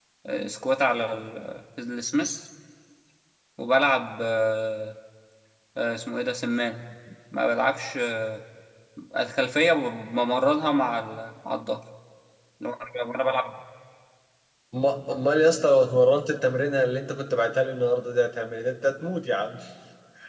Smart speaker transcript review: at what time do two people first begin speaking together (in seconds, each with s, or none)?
none